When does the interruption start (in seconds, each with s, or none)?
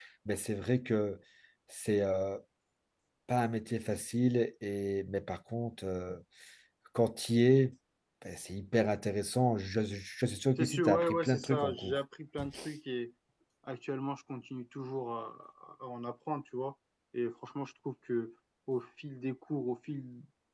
10.6 s